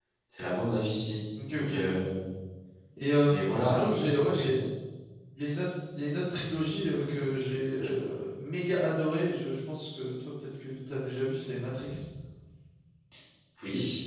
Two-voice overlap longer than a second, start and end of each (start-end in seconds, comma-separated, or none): 3.2-4.5